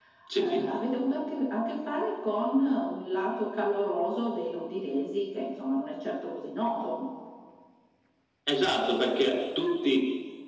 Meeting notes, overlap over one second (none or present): none